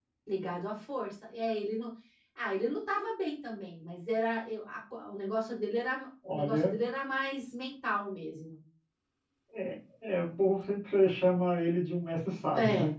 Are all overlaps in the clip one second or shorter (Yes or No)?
Yes